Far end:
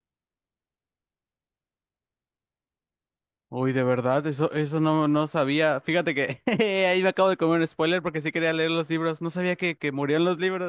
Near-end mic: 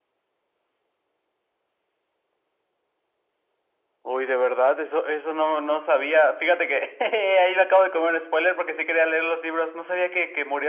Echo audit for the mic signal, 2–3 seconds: neither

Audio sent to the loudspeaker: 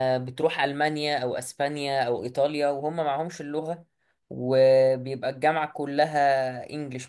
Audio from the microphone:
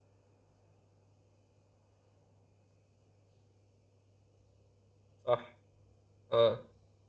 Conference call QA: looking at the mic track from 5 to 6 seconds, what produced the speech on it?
user only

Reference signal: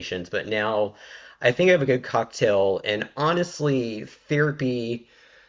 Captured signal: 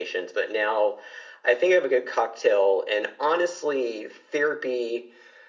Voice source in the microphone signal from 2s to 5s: echo only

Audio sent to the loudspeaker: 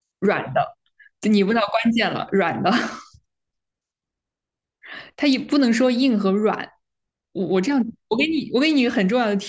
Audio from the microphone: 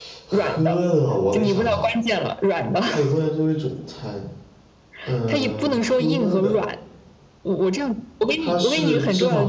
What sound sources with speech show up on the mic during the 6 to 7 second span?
both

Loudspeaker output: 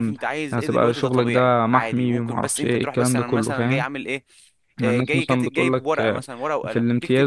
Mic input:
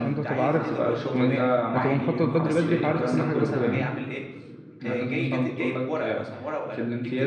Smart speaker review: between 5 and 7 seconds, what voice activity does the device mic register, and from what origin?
echo only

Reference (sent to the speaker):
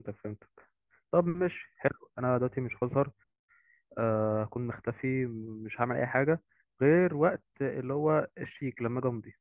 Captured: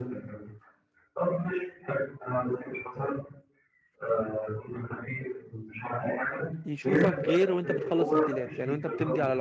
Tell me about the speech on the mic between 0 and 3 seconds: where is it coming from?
echo only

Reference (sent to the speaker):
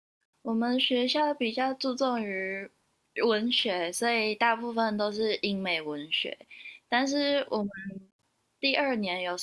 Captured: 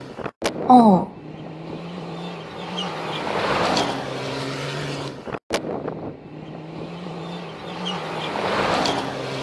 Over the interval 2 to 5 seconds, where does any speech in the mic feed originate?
neither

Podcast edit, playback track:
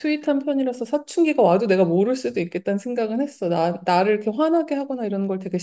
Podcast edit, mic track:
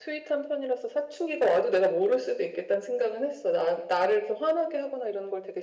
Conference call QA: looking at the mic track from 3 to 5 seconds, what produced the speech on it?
echo only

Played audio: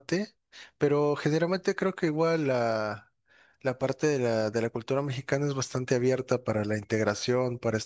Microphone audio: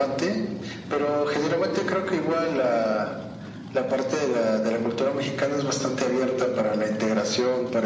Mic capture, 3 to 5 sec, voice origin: echo only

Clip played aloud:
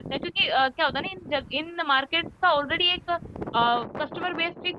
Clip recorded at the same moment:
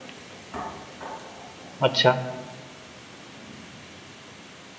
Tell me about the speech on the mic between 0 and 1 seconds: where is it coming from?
neither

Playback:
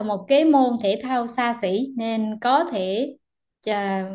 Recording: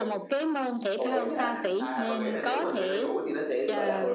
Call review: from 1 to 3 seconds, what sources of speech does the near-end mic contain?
both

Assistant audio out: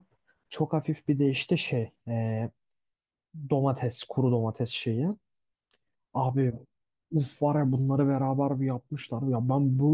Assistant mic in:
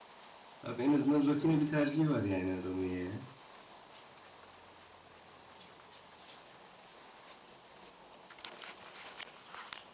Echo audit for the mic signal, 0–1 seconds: user only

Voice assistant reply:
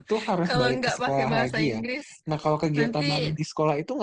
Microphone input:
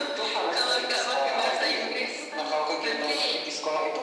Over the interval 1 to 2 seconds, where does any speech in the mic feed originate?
both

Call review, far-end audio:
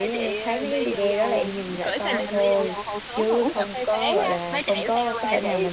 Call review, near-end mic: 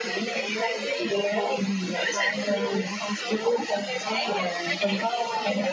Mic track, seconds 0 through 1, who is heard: echo only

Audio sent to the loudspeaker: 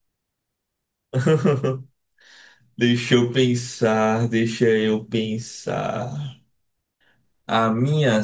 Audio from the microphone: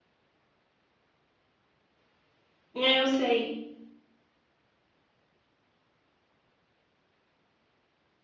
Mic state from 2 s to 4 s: user only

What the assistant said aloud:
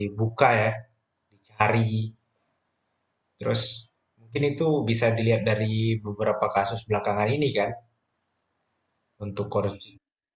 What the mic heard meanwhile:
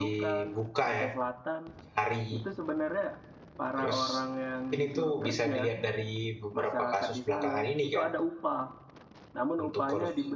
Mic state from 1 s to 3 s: both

